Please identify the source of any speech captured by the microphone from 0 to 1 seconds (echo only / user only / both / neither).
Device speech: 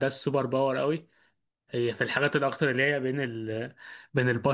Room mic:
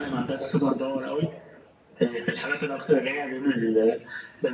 echo only